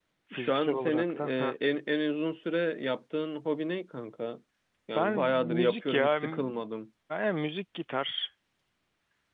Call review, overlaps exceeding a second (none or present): present